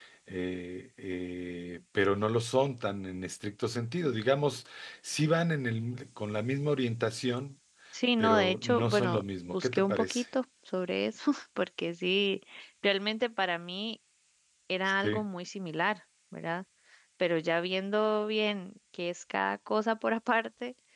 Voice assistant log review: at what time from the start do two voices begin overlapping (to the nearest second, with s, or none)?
8 s